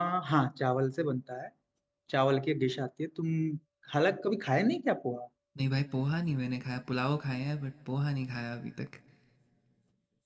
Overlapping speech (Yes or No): No